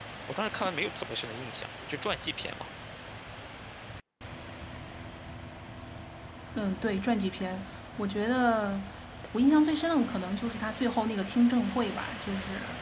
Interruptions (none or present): none